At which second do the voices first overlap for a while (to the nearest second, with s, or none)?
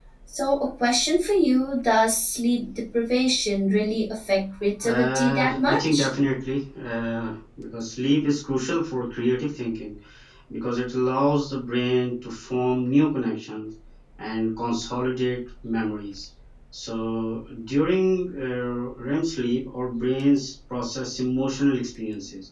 5 s